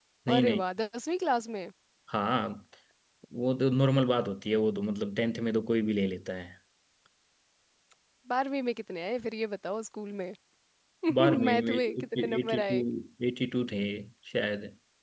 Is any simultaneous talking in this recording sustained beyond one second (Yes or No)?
Yes